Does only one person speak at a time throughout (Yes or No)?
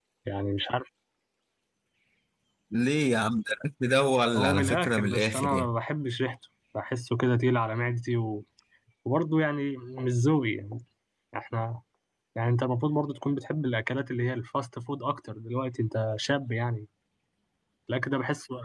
No